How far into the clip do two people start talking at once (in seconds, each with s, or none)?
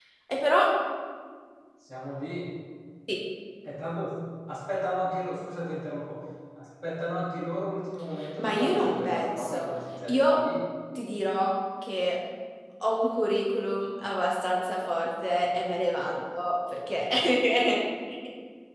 8.4 s